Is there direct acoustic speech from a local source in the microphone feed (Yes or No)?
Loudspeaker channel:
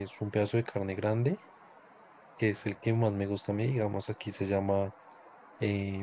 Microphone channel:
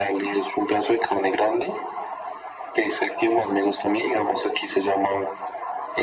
No